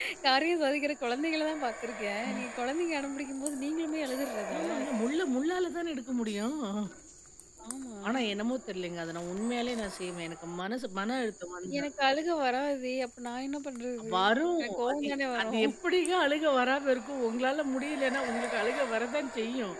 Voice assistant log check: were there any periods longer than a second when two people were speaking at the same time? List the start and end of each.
none

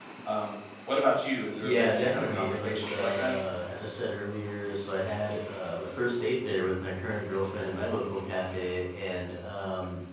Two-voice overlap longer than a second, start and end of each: 1.6-3.4

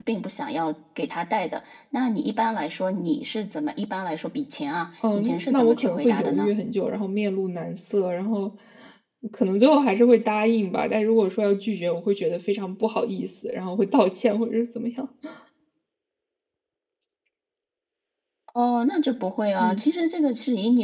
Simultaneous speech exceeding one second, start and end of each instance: 5.2-6.5

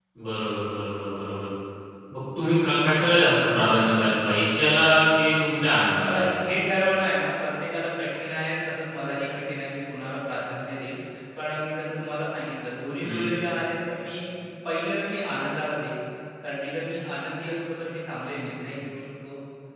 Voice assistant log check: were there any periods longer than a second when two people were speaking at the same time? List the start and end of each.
none

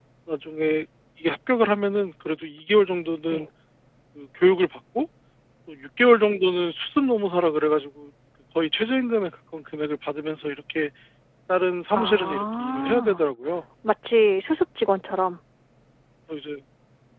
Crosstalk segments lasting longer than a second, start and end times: 11.9-13.2

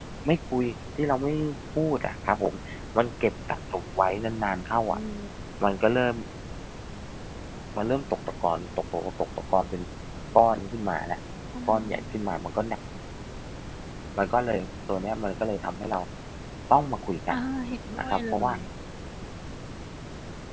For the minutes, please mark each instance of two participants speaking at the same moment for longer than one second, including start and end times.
none

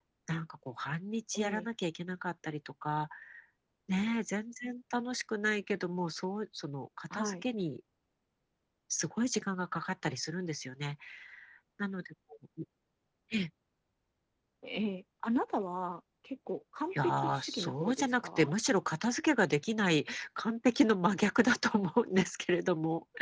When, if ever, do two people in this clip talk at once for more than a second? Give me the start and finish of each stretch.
17.0-18.5

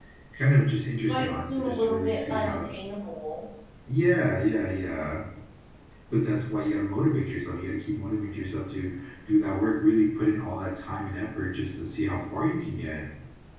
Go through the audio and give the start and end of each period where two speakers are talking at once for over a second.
1.1-2.6

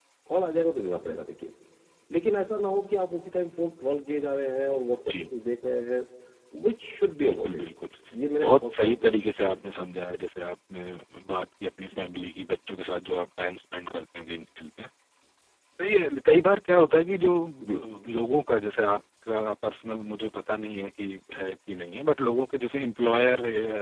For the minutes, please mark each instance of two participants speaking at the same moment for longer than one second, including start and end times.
8.4-9.7

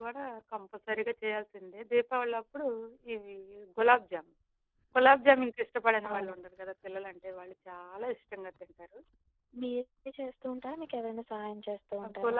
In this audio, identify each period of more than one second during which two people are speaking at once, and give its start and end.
none

